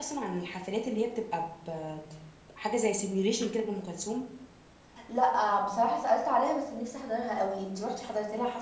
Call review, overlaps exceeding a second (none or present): none